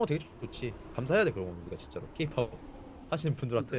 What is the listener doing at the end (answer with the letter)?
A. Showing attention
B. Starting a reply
B